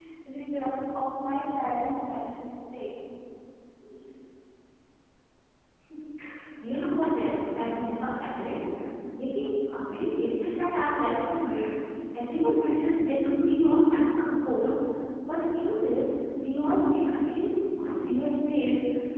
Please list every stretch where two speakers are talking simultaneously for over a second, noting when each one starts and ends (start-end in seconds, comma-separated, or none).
none